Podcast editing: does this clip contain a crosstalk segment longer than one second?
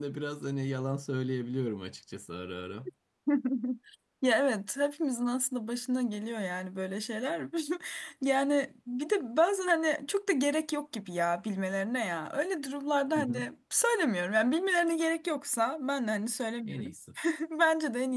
No

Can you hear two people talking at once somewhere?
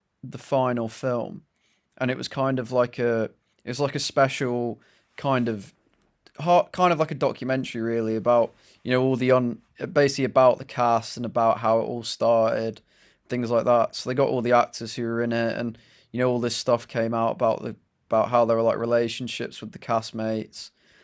No

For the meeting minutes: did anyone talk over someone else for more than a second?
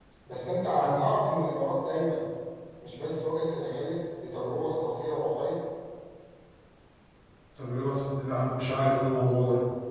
No

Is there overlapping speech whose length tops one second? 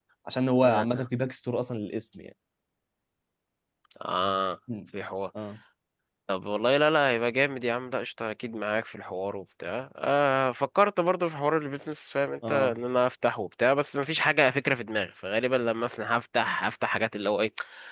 No

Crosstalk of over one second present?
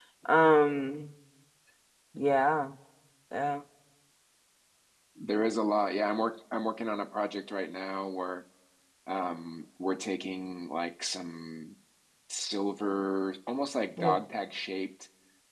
No

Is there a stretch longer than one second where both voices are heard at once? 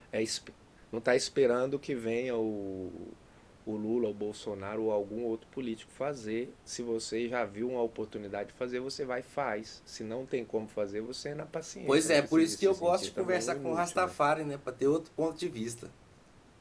Yes, from 11.9 s

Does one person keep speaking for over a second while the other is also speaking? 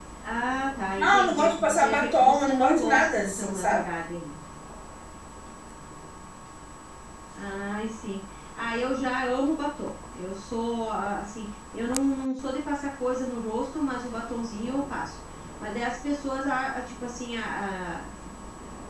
Yes, from 0.9 s

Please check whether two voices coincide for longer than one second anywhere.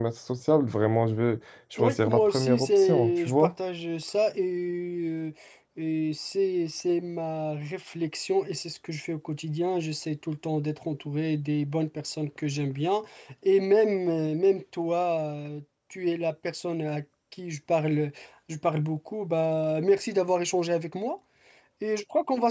Yes, from 1.8 s

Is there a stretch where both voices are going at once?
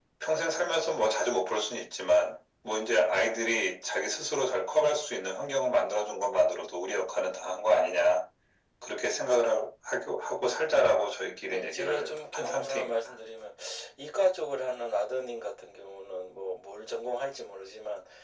Yes, from 11.5 s

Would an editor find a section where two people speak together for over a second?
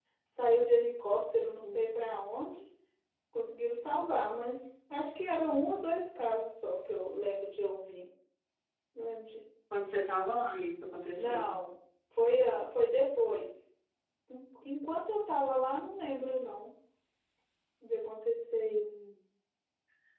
No

